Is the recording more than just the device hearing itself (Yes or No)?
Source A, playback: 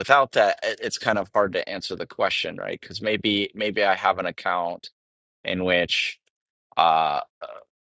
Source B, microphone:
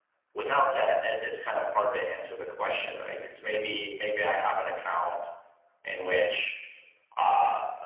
No